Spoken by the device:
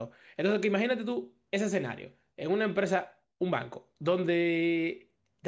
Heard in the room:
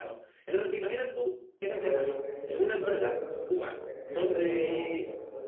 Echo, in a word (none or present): present